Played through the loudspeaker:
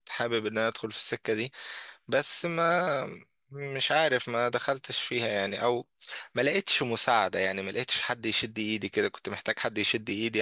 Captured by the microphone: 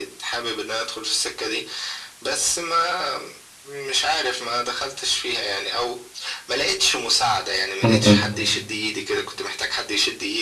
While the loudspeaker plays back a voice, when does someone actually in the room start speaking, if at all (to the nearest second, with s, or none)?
8 s